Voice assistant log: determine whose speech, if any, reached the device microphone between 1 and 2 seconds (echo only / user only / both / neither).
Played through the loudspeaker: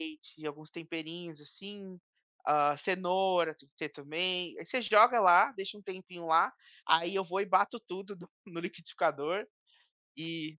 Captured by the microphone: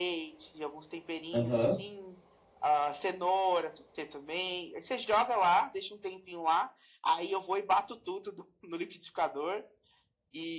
both